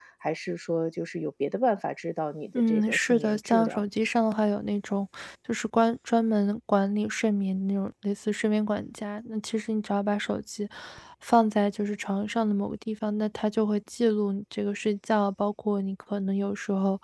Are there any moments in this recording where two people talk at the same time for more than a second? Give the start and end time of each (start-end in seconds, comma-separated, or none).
2.6-3.8